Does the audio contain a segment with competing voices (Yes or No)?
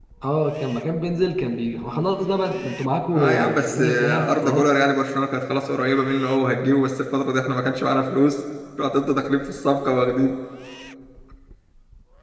Yes